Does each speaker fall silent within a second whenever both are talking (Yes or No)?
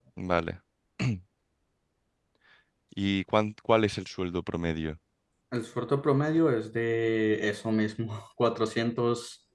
Yes